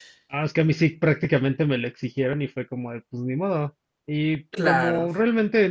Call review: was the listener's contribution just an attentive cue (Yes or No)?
Yes